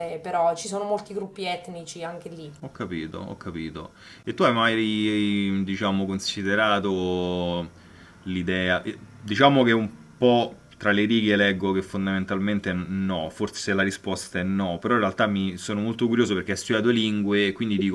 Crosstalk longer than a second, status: none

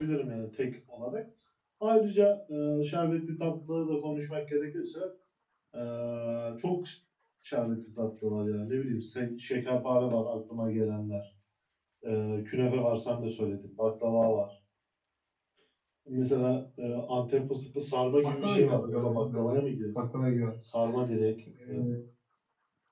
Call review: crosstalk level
present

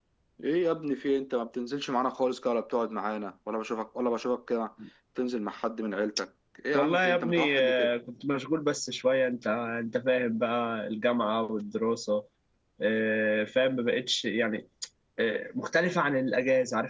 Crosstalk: present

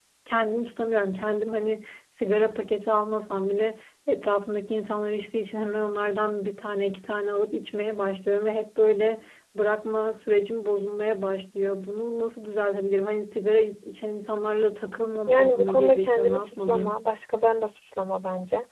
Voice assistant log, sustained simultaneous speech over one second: present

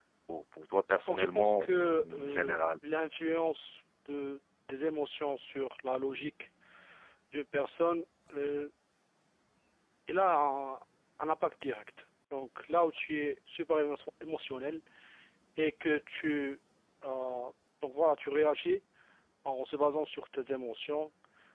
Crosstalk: present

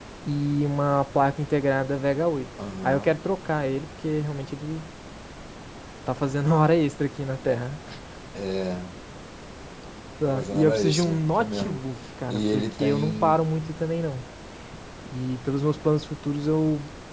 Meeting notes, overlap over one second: present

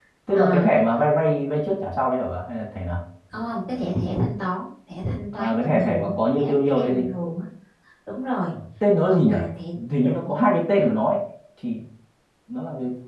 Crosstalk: present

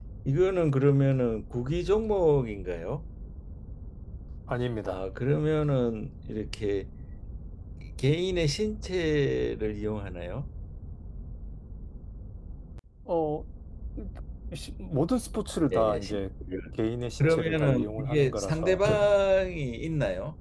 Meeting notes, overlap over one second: present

